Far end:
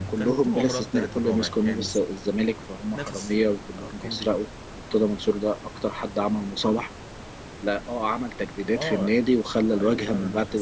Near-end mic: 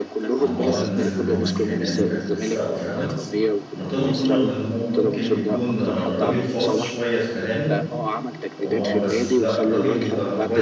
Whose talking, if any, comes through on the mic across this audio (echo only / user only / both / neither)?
both